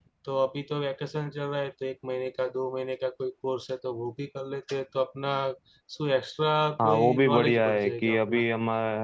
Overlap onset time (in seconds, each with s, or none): 6.8 s